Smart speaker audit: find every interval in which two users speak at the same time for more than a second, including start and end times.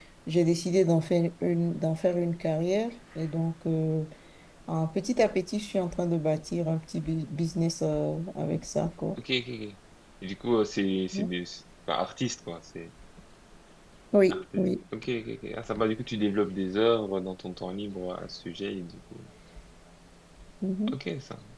none

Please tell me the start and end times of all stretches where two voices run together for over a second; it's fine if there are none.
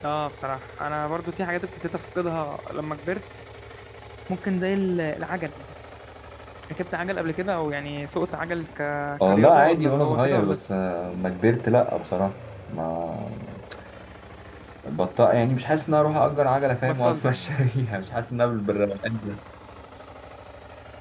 9.3-10.7

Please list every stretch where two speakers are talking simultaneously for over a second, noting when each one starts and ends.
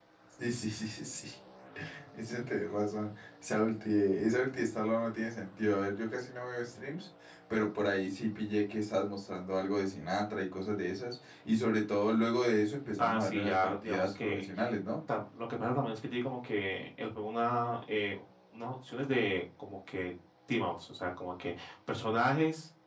13.0-14.4

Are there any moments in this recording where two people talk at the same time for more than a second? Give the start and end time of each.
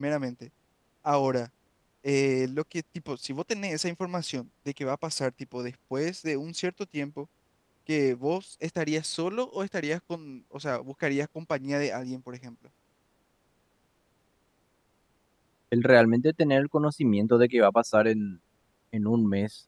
none

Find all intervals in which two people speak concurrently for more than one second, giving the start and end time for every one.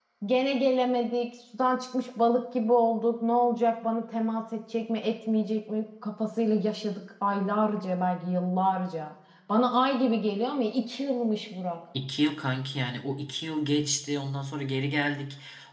none

